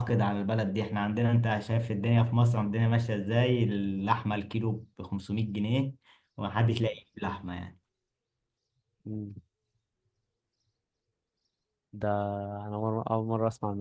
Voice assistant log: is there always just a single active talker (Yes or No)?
Yes